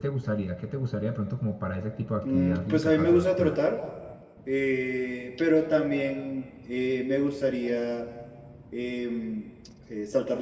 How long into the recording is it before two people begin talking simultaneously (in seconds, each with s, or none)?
2.2 s